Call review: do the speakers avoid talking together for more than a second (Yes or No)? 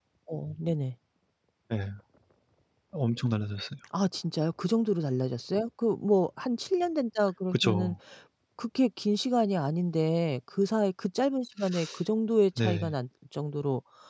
Yes